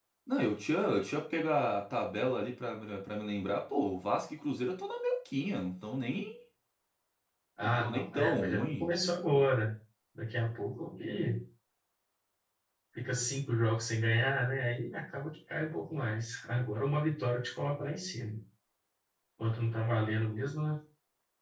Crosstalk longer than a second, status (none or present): present